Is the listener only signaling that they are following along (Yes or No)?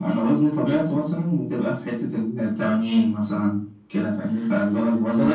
No